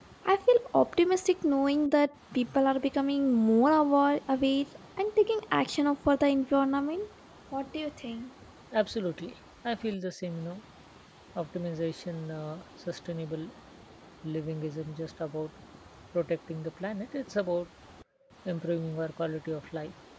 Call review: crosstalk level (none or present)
none